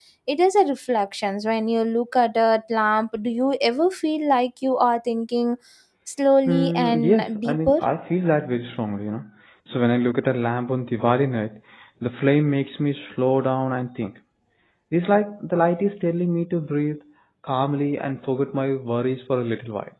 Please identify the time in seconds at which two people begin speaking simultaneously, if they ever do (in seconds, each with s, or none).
6.5 s